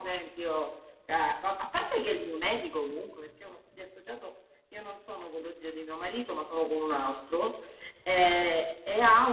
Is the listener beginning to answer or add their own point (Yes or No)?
No